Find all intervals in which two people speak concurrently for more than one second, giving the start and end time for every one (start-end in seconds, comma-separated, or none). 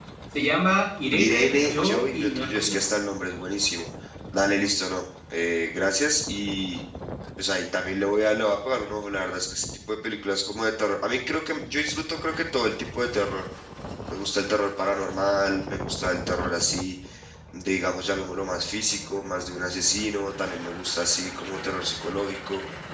1.1-2.8